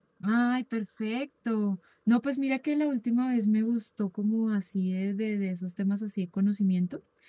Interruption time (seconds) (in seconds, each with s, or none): none